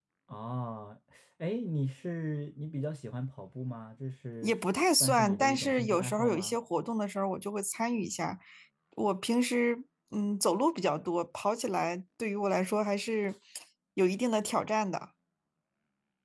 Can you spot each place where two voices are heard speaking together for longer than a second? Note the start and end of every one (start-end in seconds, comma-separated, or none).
5.0-6.6